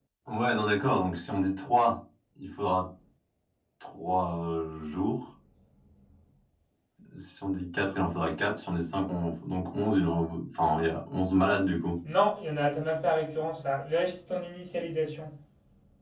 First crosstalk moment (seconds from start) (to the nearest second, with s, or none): none